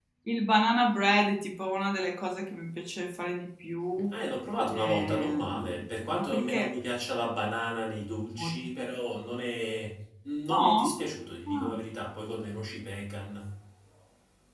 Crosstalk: present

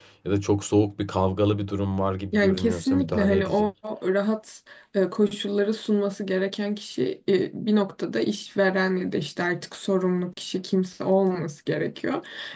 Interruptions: present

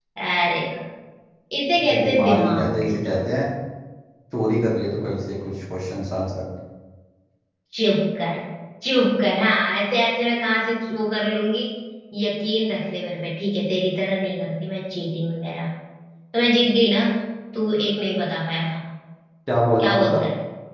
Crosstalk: present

